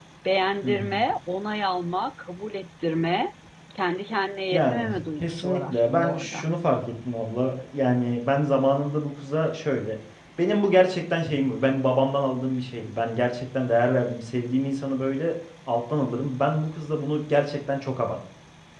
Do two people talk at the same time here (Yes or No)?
Yes